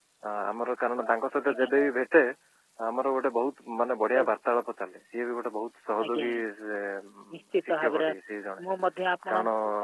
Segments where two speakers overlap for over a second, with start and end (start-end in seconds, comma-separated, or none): none